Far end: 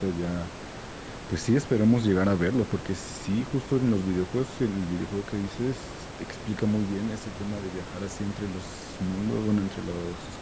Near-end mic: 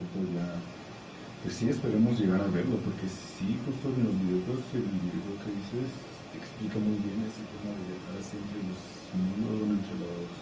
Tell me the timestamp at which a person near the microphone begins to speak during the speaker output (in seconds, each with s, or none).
none